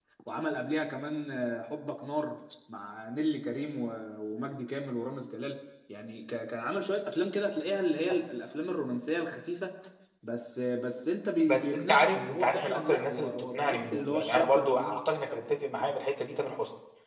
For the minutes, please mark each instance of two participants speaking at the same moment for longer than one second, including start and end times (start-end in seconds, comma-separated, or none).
11.5-14.9